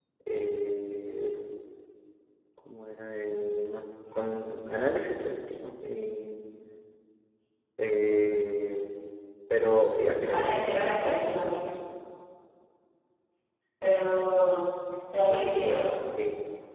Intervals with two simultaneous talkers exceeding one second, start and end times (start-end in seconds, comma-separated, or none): 10.2-11.6